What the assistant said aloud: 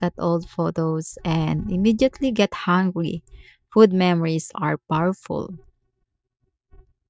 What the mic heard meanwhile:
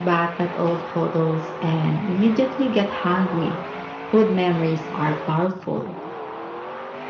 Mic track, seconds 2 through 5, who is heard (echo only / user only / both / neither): echo only